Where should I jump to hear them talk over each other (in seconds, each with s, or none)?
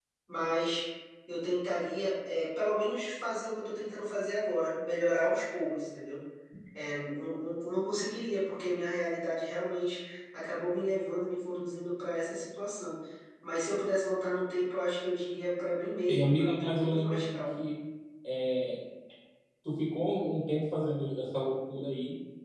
16.1 s